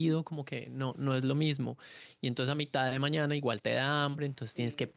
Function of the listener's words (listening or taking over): listening